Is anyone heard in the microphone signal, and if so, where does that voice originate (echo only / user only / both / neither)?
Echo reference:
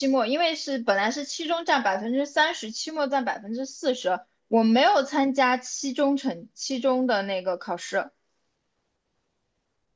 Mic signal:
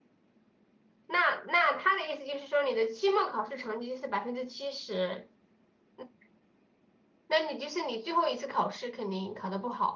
user only